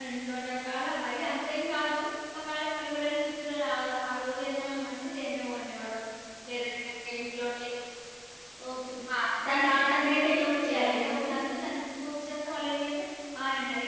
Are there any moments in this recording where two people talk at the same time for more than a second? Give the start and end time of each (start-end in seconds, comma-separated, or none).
9.4-11.3